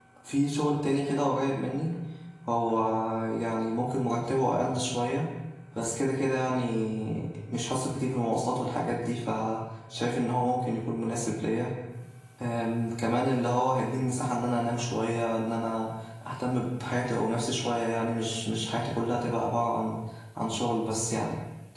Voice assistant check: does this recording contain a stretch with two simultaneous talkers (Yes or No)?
No